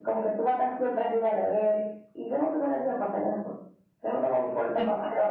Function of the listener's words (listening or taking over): listening